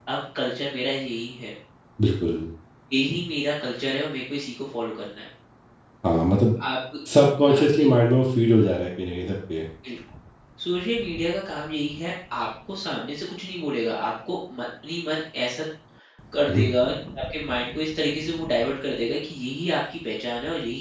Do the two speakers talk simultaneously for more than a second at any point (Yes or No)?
No